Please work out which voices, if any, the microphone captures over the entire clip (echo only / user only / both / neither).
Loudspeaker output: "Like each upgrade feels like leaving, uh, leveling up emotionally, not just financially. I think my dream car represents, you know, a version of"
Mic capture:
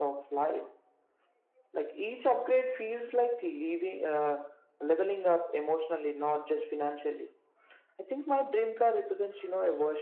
echo only